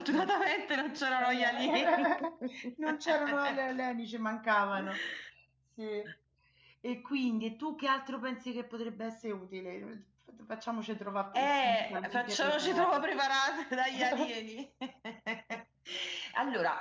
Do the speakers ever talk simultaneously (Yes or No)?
Yes